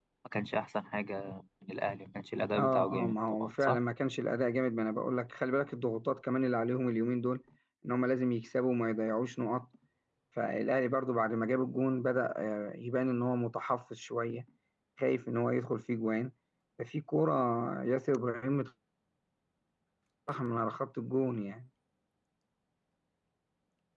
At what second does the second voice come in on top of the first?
2.6 s

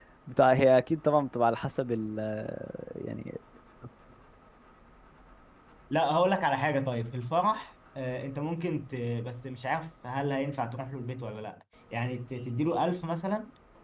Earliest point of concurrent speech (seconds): none

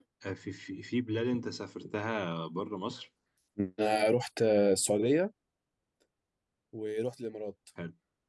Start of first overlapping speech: none

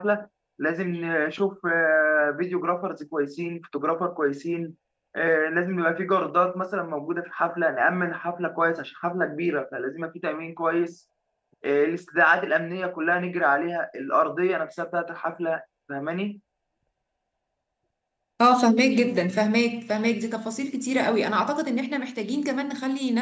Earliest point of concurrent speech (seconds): none

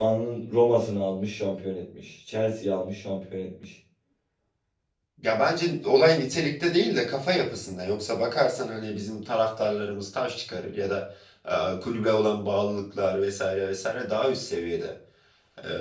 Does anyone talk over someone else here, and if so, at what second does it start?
none

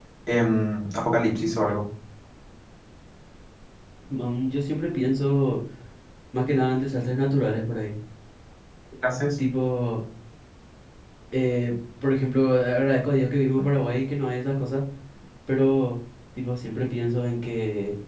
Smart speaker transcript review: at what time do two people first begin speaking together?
none

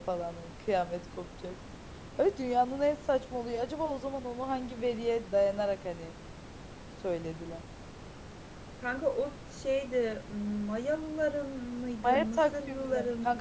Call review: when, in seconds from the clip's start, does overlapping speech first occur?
12.0 s

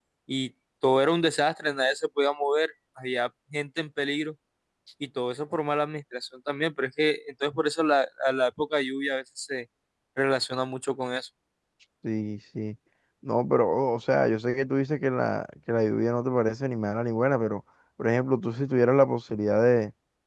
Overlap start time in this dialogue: none

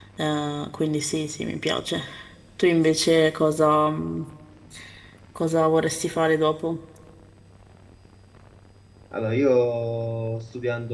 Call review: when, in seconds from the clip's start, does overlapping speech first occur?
none

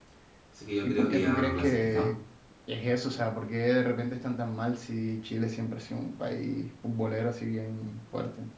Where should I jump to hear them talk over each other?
0.8 s

